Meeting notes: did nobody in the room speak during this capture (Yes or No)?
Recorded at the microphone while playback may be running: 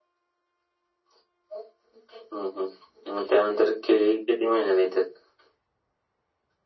Yes